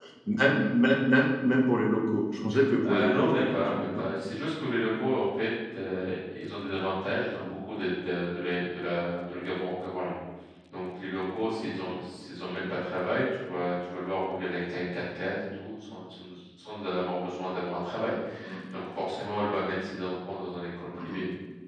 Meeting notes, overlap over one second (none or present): present